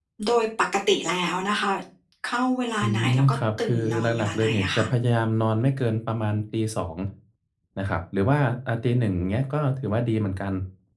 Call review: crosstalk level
present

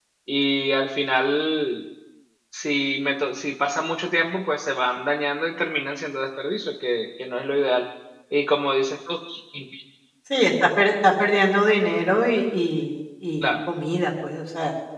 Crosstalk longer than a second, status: none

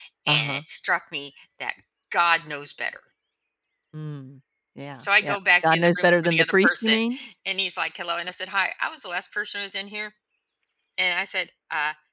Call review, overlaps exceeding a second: present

